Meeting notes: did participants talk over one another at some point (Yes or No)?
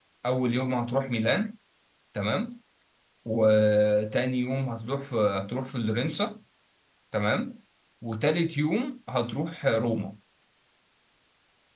No